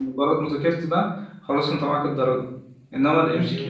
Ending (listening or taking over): listening